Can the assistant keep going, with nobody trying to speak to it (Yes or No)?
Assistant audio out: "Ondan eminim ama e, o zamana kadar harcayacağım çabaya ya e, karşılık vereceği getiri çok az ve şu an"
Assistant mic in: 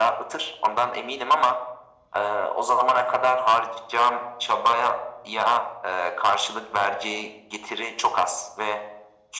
Yes